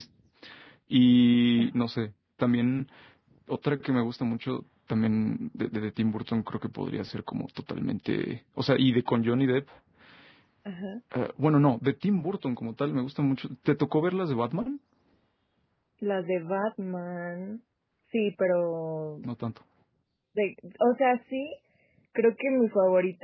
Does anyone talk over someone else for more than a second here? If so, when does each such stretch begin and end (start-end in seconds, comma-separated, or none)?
none